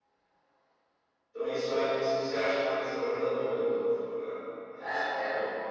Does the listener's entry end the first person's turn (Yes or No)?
Yes